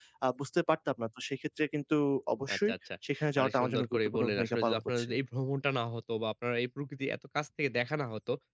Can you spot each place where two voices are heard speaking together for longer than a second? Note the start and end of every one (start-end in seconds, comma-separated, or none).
3.4-5.1